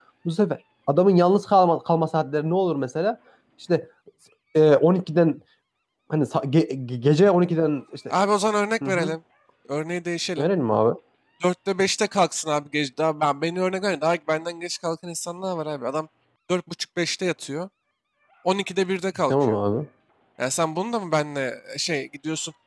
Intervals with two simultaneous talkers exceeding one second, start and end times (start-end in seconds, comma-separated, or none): none